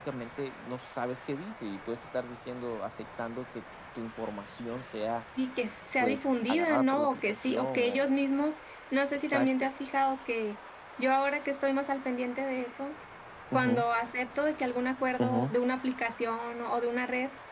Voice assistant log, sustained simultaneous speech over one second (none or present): present